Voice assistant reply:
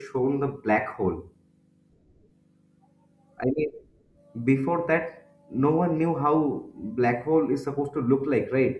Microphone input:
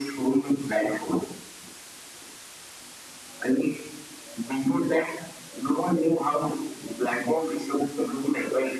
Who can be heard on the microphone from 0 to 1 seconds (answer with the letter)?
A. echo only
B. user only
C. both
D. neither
A